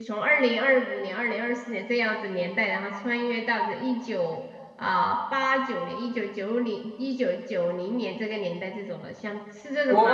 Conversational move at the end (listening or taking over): taking over